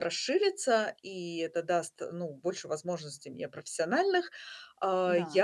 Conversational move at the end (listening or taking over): listening